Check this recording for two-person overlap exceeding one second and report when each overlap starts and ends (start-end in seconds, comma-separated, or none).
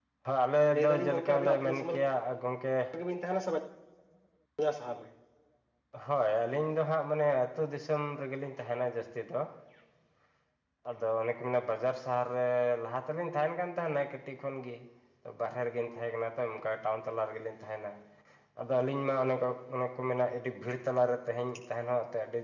0.7-1.9